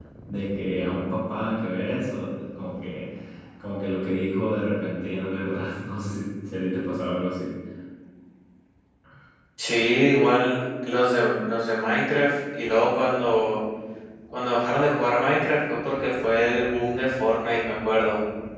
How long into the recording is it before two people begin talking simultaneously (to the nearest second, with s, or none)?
none